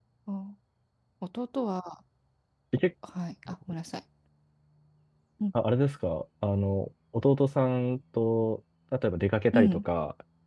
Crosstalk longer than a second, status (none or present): none